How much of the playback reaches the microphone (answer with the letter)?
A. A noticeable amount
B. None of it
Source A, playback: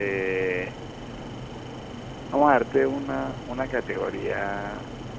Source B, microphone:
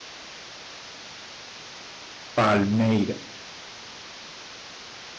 B